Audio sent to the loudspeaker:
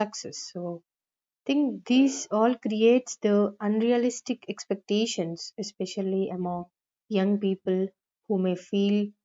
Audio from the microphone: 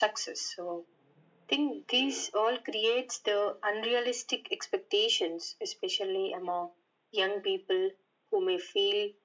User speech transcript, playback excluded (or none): none